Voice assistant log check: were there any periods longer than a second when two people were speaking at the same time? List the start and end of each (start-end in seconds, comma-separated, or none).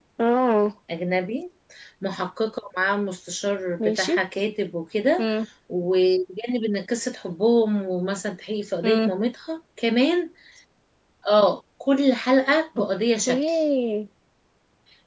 none